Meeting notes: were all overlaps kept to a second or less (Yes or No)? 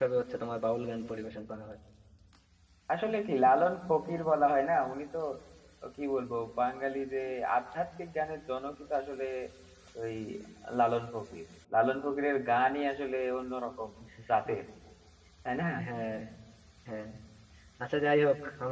Yes